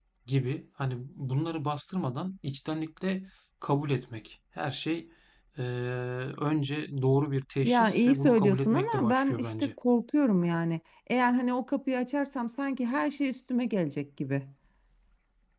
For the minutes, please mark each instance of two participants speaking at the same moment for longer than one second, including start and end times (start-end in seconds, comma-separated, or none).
7.6-9.7